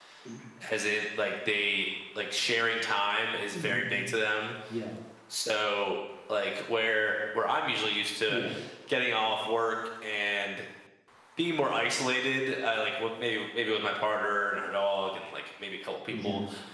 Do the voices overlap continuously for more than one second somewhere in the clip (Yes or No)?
No